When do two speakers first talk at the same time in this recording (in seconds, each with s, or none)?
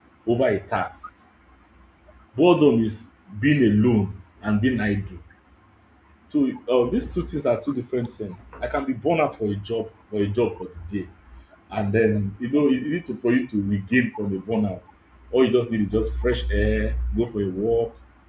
none